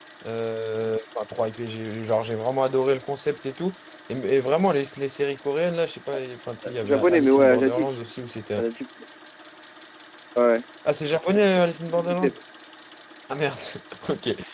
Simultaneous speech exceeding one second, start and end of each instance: 6.6-8.0

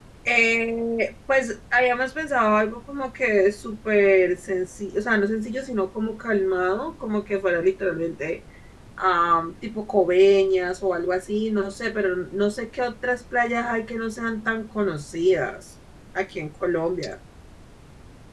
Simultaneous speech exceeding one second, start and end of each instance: none

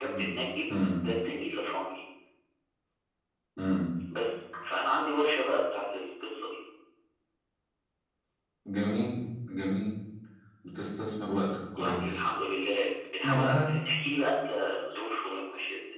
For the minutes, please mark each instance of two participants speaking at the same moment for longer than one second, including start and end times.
none

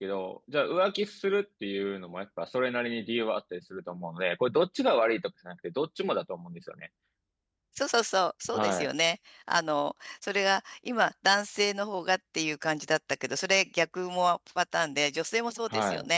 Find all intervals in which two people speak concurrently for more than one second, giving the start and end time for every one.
none

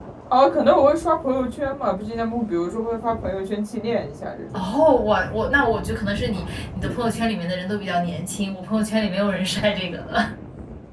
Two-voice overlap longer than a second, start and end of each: none

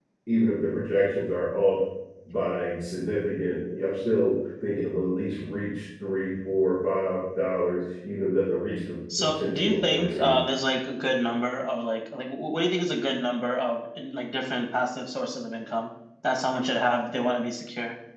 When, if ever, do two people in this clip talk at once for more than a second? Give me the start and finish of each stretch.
9.2-10.4

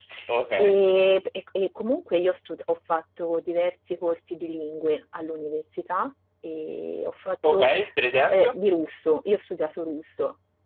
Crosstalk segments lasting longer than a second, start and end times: none

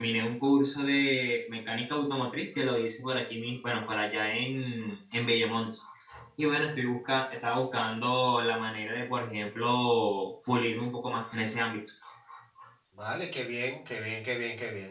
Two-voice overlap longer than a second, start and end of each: none

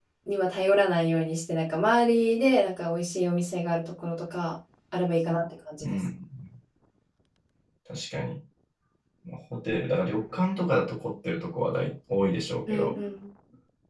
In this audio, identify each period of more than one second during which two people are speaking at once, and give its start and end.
none

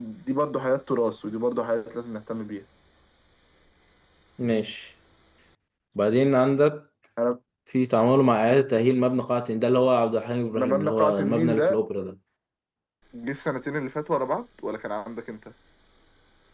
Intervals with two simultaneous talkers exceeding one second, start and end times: 10.6-11.8

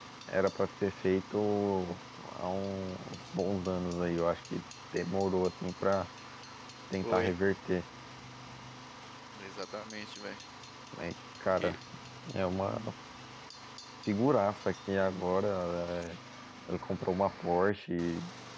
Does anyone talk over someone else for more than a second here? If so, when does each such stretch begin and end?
none

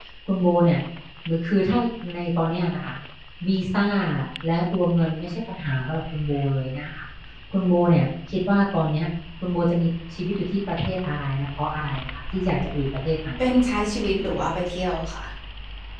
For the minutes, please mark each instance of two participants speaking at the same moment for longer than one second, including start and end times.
none

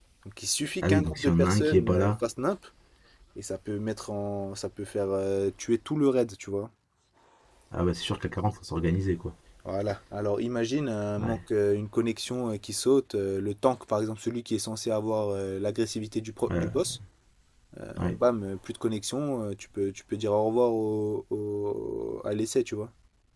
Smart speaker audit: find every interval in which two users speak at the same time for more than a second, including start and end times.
0.8-2.1

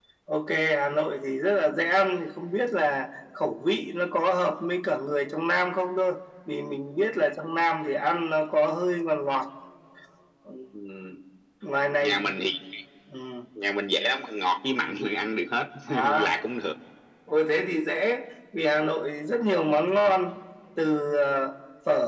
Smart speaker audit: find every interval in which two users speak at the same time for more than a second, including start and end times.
none

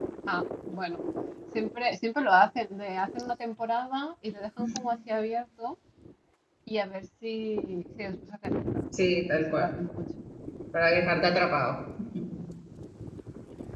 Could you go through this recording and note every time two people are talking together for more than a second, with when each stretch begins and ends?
none

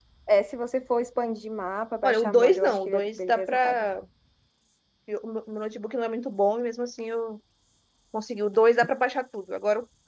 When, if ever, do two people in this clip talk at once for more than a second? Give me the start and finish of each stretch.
2.0-3.9

